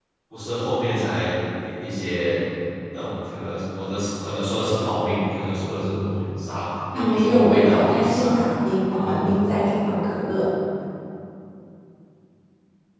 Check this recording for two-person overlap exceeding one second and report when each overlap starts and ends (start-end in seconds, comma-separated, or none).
6.9-8.3